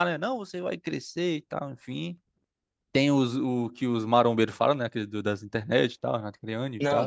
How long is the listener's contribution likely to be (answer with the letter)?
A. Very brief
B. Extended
B